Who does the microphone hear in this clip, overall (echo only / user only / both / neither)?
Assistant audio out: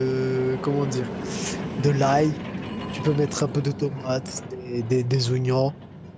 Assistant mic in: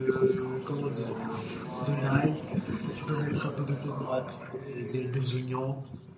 both